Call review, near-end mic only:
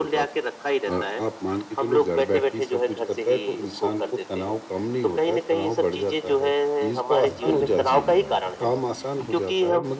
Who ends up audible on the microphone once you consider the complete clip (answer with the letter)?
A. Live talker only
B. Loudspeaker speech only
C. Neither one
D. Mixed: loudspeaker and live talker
D